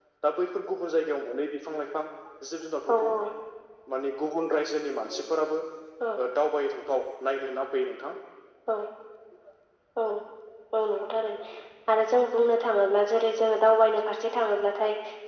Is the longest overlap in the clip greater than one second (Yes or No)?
No